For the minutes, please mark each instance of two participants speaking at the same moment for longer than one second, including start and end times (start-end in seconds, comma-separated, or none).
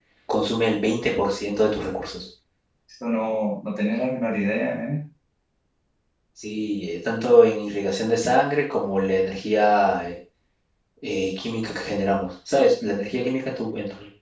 none